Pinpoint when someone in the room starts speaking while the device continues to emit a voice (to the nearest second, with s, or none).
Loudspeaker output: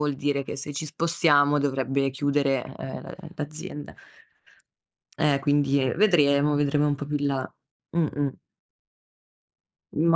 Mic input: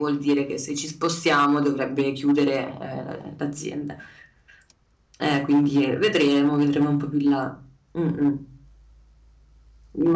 none